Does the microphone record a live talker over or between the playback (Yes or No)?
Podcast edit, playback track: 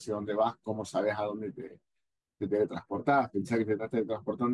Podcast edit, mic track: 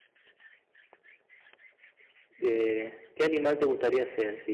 Yes